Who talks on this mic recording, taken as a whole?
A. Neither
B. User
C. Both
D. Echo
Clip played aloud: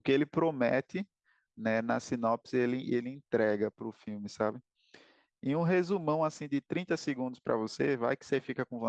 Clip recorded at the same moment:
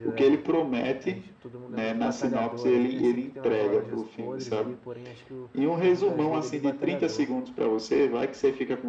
C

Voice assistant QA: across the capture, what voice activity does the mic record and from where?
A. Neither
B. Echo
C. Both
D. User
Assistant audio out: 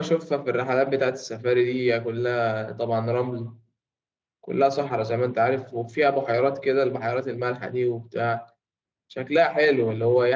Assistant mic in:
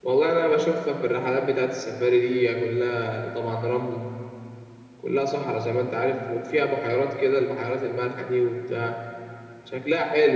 B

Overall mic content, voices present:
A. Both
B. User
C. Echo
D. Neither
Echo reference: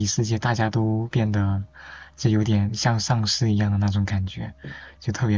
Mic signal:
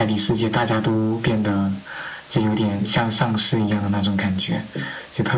C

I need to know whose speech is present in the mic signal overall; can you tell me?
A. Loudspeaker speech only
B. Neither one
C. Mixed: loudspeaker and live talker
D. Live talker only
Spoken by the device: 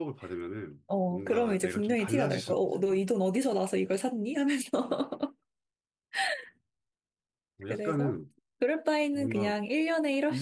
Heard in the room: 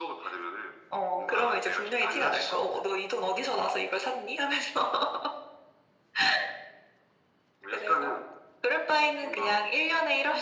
A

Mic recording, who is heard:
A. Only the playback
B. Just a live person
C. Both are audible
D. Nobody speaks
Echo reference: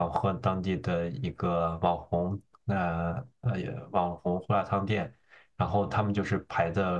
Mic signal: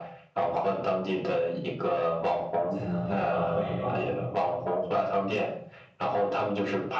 C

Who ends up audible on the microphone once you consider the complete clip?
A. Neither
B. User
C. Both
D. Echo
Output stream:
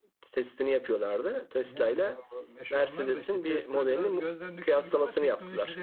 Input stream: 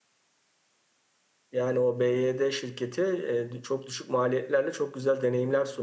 B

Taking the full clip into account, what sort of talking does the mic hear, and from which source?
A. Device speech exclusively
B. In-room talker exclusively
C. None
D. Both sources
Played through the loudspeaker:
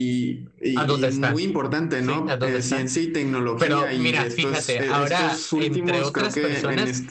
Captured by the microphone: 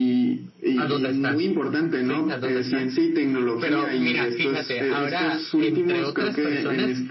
A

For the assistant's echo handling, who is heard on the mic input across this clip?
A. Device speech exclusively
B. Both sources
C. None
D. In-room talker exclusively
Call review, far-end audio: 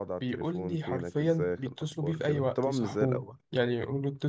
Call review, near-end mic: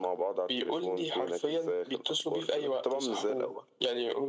A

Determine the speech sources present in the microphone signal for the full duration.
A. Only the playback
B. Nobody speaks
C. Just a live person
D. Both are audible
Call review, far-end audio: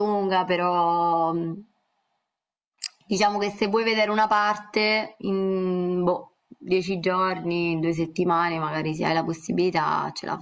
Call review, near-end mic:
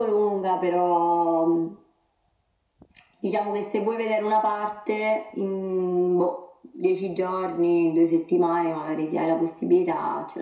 A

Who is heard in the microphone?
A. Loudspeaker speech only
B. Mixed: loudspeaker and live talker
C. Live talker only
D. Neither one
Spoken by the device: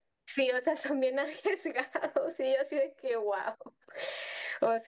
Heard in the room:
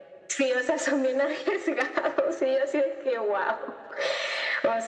A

